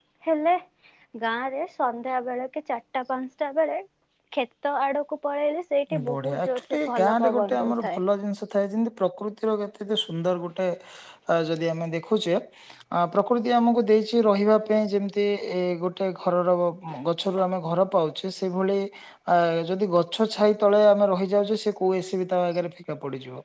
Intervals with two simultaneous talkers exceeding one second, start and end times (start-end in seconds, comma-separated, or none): 6.1-8.0